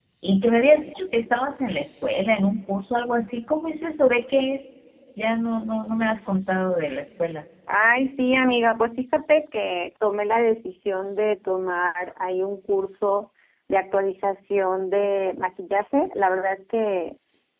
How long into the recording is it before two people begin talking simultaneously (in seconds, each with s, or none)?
none